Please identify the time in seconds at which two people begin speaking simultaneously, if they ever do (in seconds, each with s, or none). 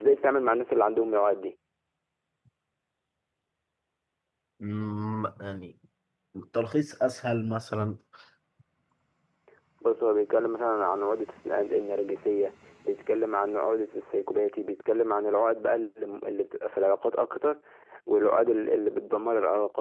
none